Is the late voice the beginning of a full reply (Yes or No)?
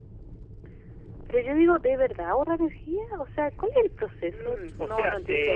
Yes